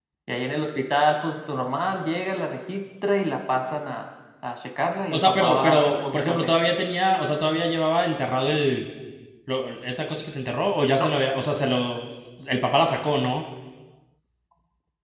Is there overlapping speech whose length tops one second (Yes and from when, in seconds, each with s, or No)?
Yes, from 5.1 s